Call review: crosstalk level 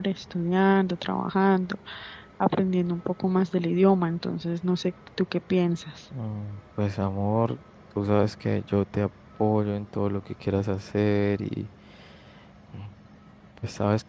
none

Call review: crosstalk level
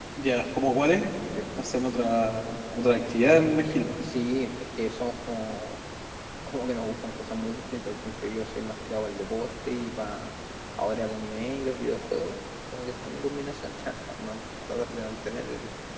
none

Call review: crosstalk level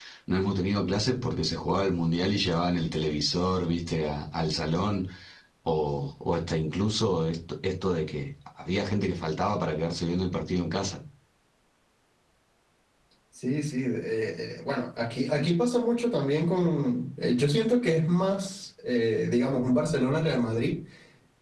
none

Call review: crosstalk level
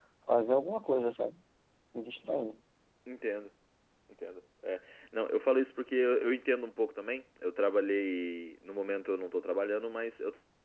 none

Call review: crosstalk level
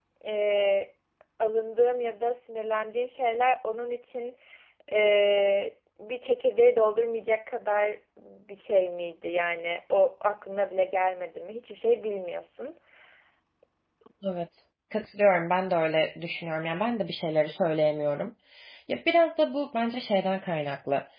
none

